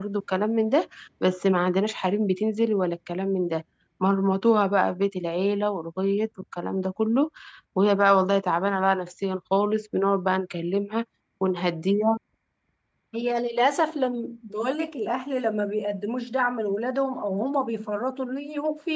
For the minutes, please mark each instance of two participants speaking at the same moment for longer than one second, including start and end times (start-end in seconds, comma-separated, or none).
none